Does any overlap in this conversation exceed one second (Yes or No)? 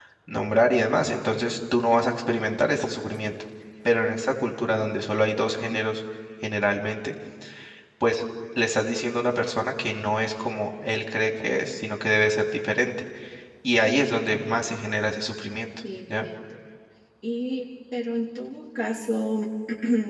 No